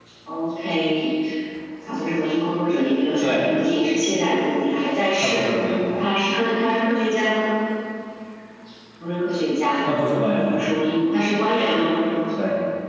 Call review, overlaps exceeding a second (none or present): none